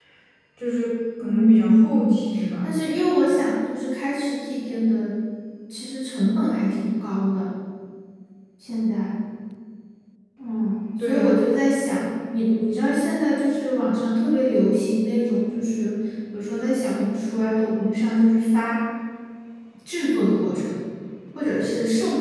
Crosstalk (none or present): present